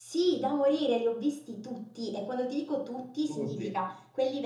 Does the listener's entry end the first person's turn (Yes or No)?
No